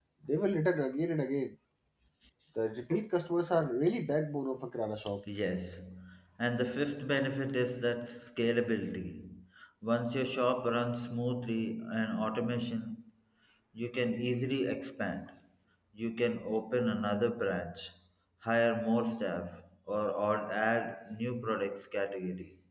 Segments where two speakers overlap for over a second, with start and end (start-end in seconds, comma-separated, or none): none